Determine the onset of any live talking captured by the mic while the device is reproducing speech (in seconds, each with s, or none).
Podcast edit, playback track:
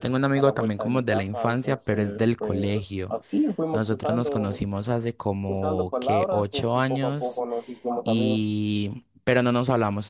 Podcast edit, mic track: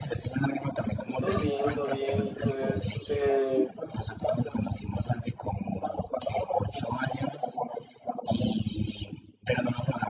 1.0 s